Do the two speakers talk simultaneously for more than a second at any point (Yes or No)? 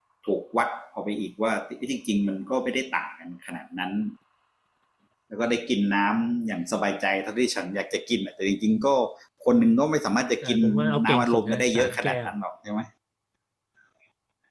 Yes